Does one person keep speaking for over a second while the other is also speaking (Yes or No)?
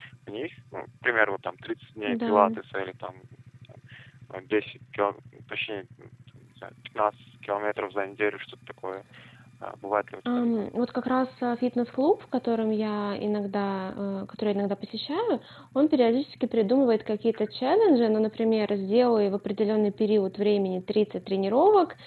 No